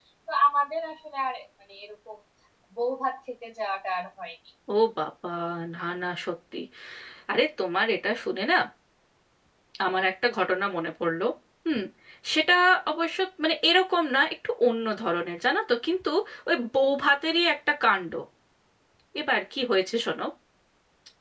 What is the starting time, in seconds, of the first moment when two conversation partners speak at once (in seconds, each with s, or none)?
none